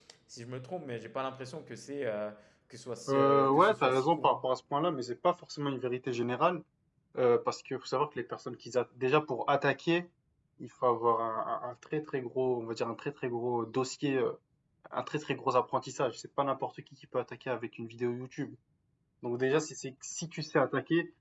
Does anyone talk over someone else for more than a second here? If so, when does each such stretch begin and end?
3.1-4.5

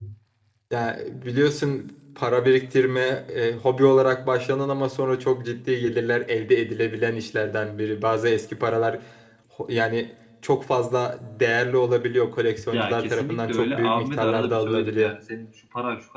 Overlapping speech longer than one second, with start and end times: 12.7-15.2

